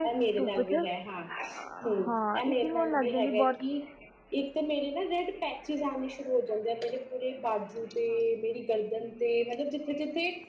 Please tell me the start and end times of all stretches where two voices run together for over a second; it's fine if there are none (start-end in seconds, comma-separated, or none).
2.0-3.6